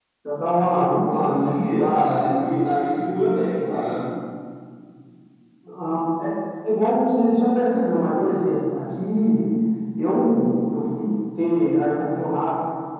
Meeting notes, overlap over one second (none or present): present